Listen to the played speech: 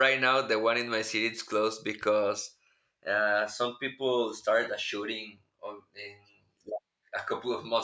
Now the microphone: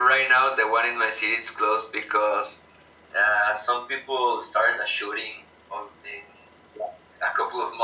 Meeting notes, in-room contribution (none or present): none